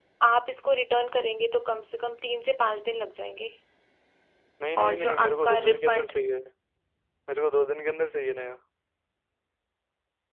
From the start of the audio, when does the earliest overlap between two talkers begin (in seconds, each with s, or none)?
4.8 s